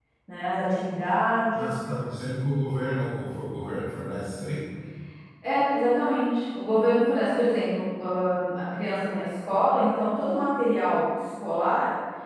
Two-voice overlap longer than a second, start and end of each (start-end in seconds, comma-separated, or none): none